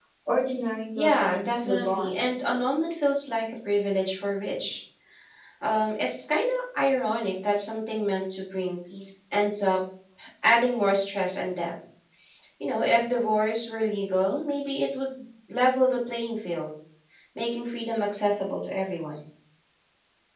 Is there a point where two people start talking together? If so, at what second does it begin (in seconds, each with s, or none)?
1.0 s